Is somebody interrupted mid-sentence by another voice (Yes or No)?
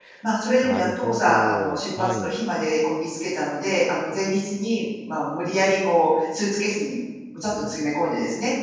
Yes